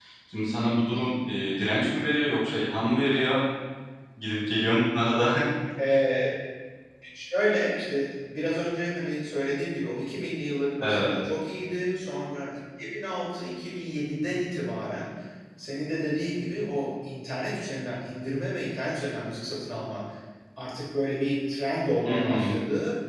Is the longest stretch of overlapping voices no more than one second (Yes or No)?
Yes